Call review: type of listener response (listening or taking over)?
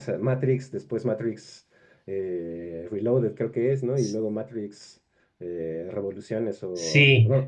taking over